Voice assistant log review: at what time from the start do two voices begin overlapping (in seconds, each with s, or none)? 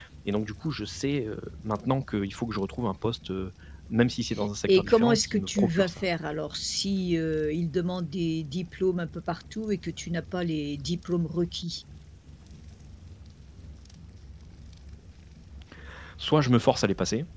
4.7 s